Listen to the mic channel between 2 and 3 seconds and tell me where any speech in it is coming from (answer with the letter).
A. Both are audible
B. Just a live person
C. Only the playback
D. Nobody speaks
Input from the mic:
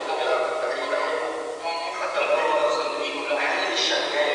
C